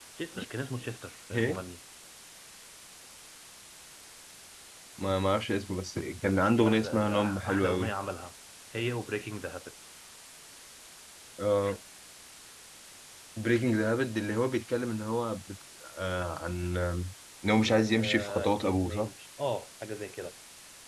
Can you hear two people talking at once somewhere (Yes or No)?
Yes